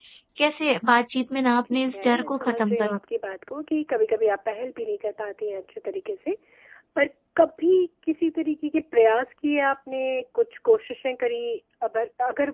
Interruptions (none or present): present